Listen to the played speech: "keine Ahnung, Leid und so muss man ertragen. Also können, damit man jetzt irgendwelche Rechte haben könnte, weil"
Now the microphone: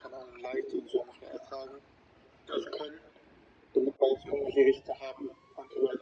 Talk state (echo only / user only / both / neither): echo only